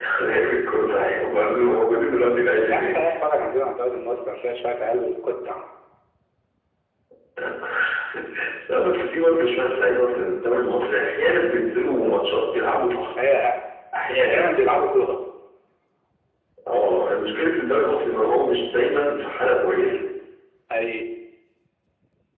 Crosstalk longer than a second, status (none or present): none